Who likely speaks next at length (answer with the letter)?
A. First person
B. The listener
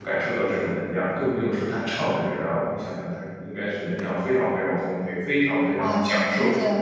B